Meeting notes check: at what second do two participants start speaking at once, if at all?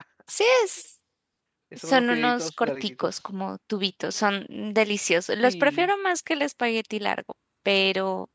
1.8 s

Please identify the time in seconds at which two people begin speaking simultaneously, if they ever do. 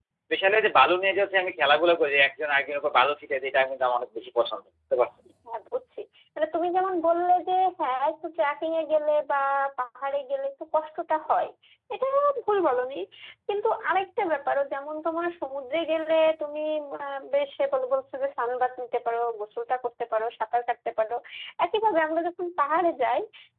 none

